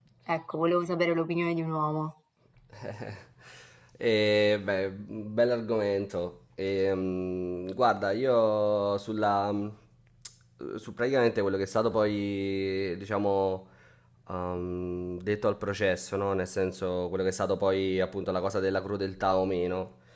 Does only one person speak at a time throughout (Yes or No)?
Yes